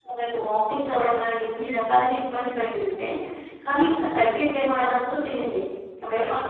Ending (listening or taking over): taking over